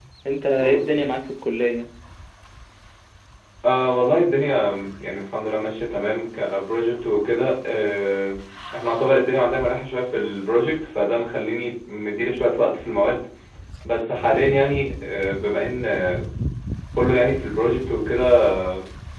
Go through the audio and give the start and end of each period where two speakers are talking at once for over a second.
none

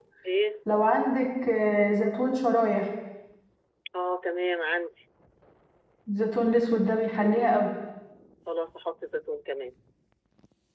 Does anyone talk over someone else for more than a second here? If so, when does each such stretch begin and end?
none

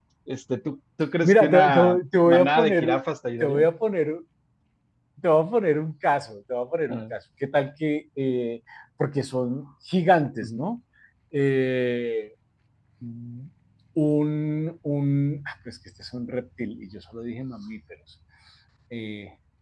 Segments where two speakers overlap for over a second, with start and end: 1.2-3.0

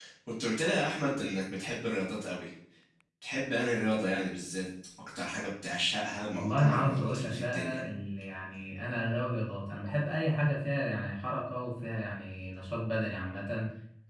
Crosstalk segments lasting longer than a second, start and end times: 6.3-7.8

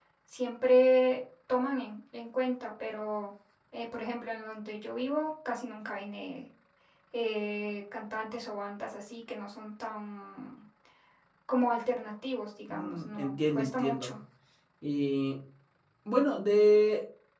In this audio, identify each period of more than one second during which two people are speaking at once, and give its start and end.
12.7-14.1

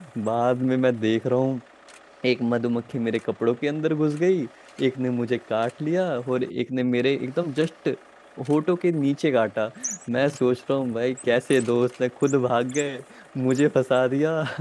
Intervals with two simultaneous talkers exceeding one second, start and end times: none

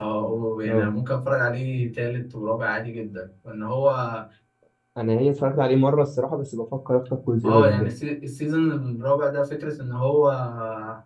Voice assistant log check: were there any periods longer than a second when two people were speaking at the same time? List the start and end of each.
none

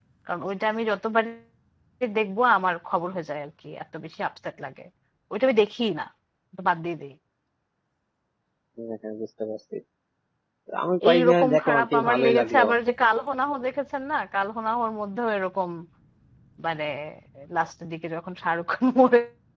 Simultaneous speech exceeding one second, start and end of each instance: 11.1-12.6

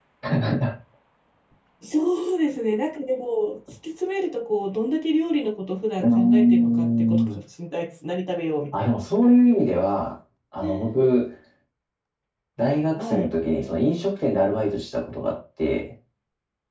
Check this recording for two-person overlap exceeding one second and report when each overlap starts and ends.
6.0-7.3

